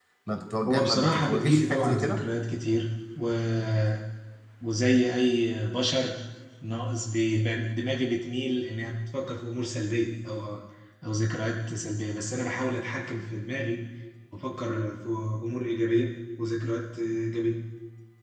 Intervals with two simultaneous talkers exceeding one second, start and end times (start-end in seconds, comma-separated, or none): 0.7-2.2